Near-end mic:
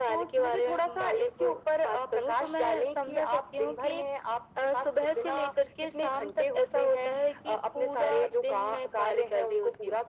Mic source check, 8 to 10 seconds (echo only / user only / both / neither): echo only